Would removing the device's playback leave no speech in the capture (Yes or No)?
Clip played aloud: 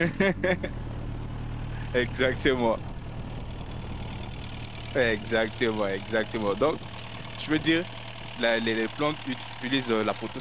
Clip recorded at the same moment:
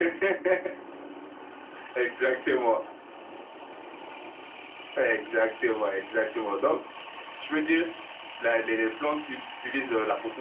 Yes